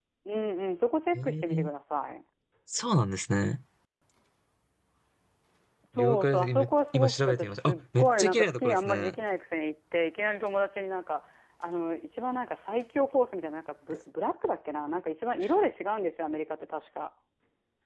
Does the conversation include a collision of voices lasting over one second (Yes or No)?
Yes